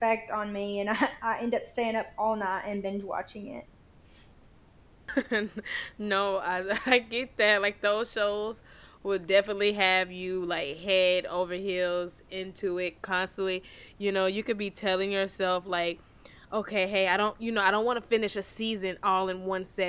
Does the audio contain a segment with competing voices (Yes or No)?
No